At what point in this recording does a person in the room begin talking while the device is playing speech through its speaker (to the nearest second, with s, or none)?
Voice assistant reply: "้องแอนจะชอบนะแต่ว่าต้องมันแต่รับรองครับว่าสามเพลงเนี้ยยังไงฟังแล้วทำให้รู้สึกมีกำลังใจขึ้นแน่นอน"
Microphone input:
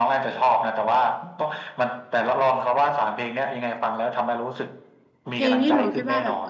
5 s